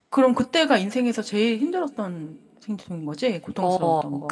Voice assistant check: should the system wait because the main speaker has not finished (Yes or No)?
No